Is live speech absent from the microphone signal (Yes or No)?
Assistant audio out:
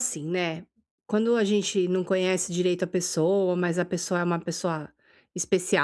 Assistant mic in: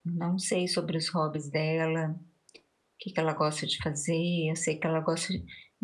No